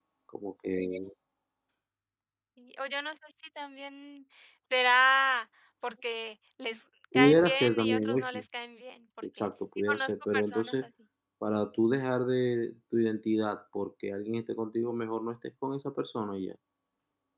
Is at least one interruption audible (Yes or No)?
Yes